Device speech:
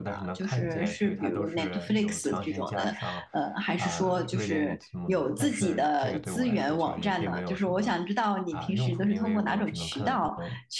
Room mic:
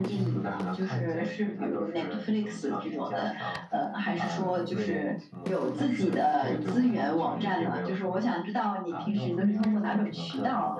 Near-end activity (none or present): none